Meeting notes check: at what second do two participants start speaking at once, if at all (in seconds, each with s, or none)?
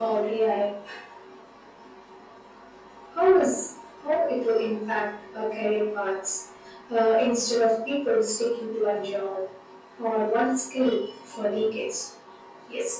none